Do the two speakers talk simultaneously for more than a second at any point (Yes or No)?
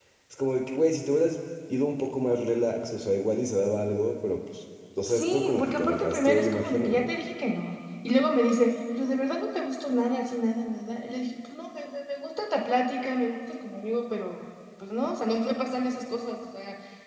Yes